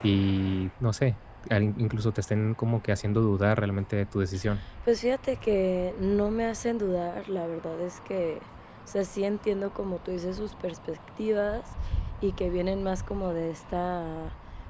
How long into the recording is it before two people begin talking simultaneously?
none

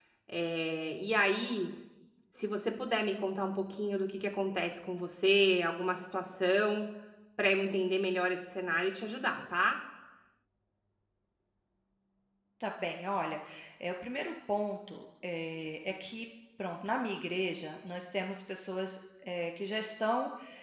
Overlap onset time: none

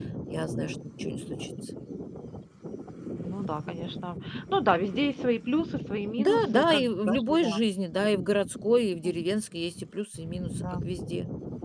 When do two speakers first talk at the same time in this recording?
6.2 s

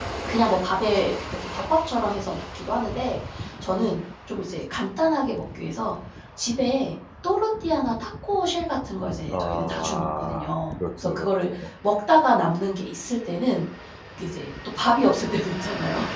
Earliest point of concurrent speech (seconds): 9.3 s

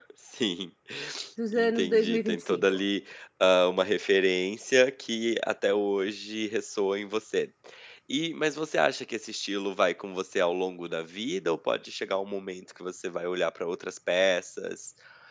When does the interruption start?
1.5 s

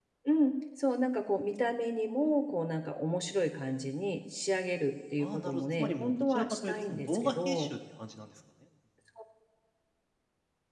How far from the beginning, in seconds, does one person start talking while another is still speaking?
5.2 s

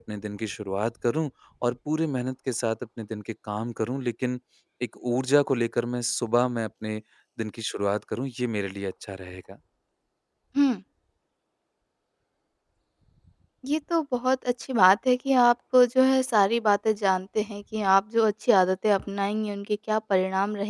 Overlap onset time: none

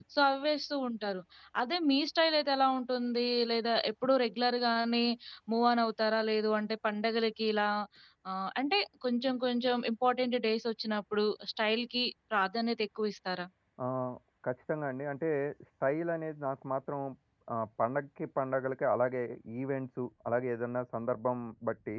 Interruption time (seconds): none

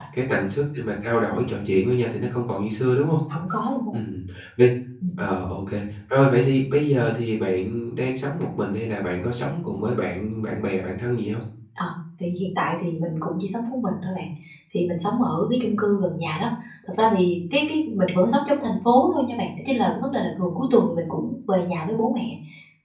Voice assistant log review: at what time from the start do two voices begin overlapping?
none

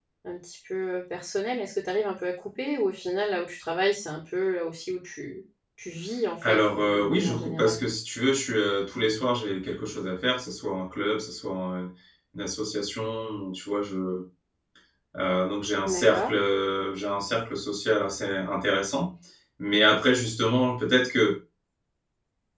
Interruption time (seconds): 6.4 s

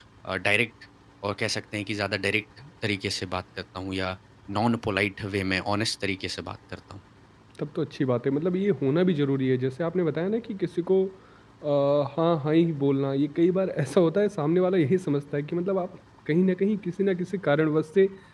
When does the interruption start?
none

